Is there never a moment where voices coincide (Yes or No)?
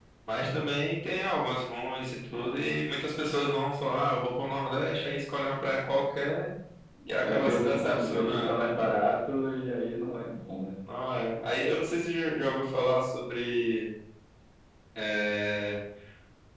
No